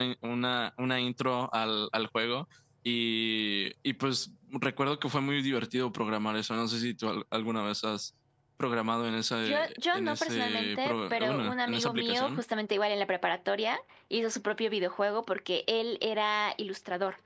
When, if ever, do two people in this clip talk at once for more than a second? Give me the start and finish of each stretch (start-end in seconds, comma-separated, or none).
9.9-12.4